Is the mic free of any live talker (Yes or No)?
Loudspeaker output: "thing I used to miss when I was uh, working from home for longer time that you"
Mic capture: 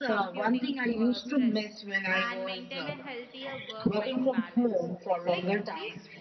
No